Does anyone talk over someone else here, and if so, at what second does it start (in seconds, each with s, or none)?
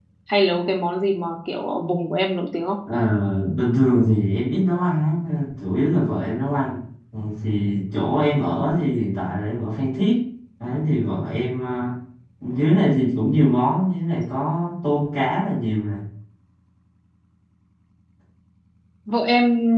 none